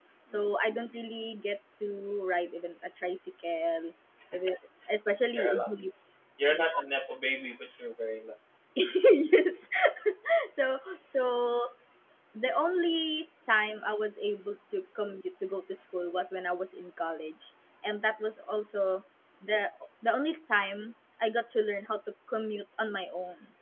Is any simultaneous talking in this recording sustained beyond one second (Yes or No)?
No